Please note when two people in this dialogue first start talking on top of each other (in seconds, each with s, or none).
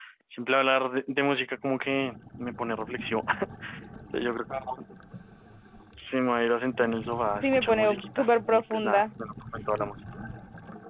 7.4 s